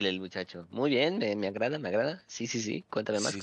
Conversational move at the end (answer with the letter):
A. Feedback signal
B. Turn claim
B